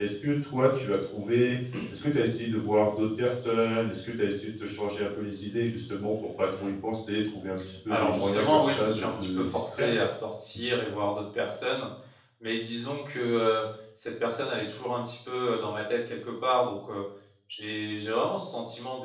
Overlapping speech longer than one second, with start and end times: 7.9-9.9

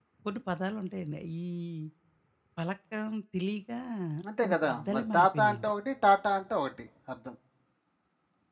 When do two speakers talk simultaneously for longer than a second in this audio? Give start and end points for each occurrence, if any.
4.4-5.7

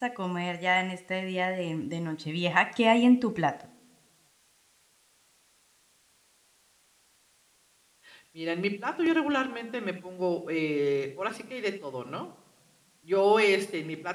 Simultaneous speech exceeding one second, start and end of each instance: none

